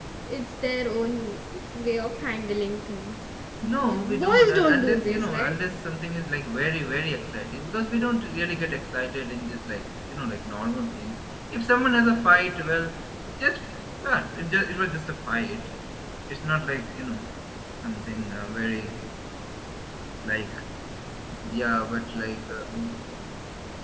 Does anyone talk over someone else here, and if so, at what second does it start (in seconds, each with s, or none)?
3.8 s